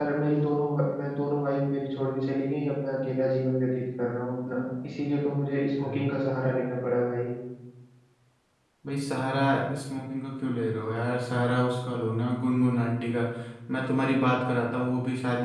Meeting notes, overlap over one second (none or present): none